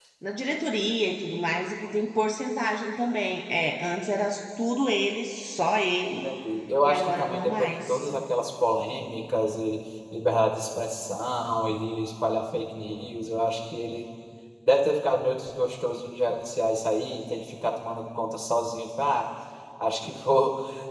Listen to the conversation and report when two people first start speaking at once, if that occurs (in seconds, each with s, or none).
6.8 s